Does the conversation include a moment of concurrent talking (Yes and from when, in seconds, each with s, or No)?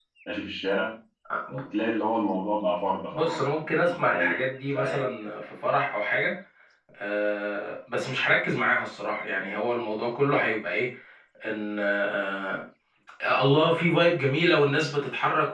Yes, from 3.1 s